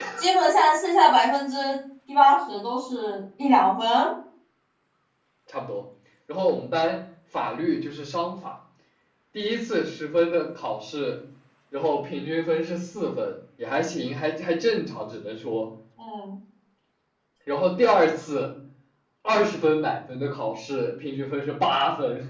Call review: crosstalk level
none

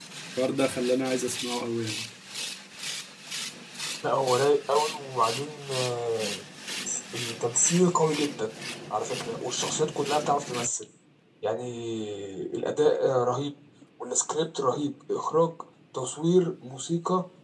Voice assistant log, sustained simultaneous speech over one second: none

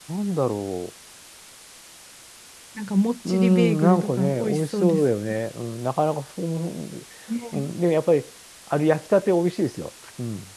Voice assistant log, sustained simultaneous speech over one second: present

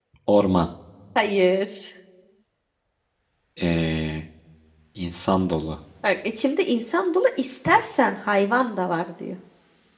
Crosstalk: none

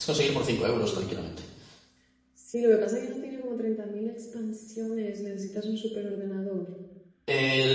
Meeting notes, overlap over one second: none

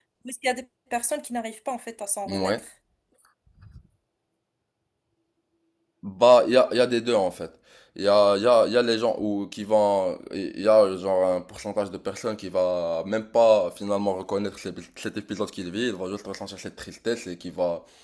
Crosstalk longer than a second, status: none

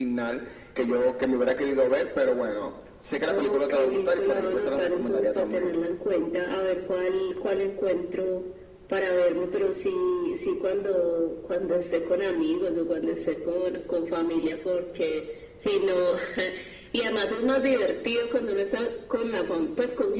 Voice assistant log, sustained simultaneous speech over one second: present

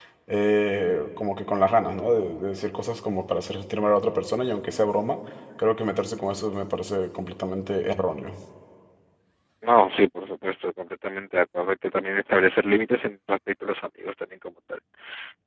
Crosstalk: none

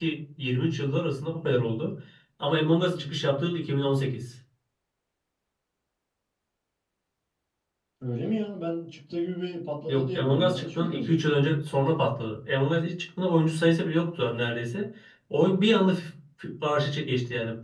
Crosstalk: present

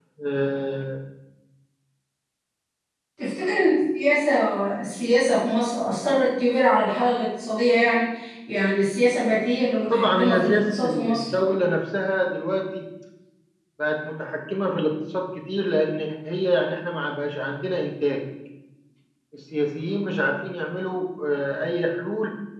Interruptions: present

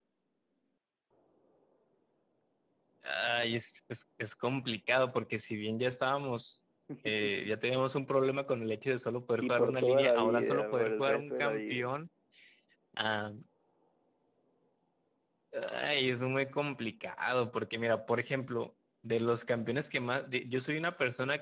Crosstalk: present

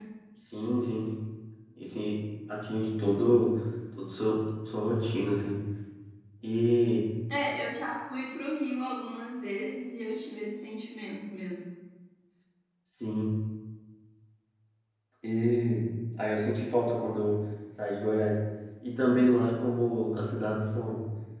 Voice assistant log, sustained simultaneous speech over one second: none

